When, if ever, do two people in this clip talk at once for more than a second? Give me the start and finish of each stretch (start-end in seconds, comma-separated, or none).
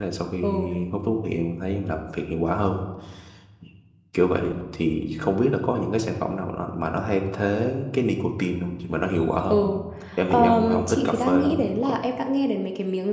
10.3-11.9